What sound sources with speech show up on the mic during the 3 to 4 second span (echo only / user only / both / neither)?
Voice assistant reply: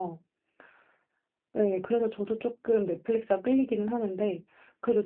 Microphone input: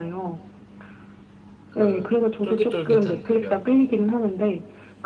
both